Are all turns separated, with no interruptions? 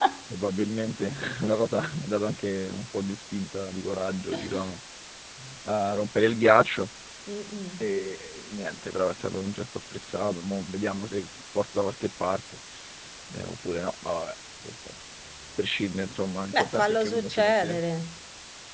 No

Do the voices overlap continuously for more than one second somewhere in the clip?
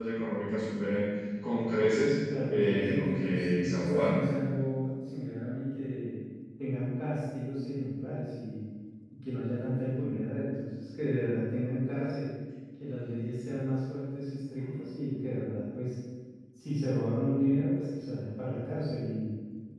Yes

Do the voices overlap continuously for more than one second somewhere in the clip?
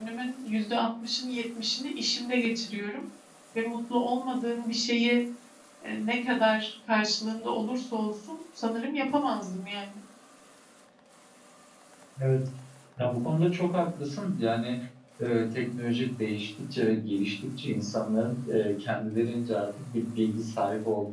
No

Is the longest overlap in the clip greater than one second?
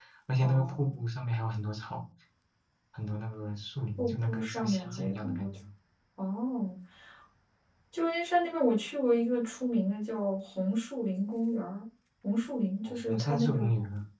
Yes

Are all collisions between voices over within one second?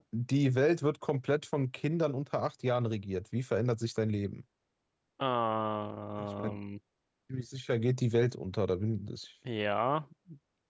Yes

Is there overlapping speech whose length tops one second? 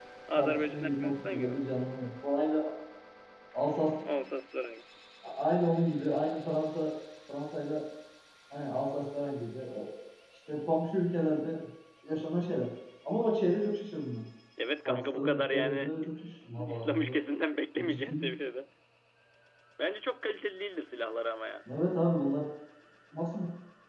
Yes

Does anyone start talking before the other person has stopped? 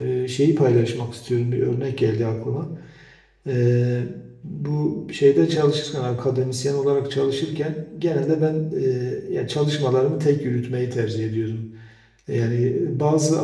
No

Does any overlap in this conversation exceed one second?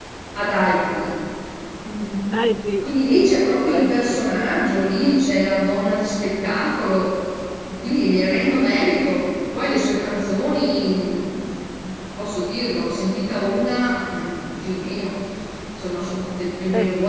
Yes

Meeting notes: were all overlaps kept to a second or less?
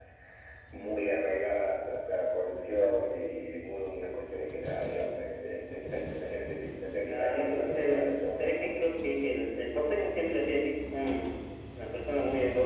No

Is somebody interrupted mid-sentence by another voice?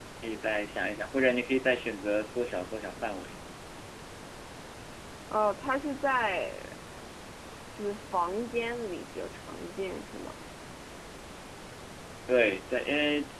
No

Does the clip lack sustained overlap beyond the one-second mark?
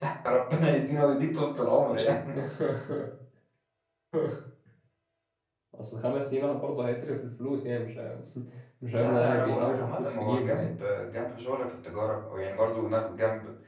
No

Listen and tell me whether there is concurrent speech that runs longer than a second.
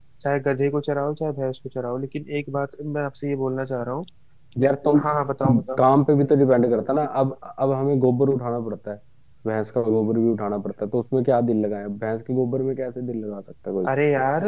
No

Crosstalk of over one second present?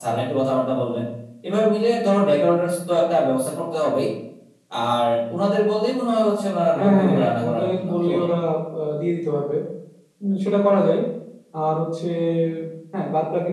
Yes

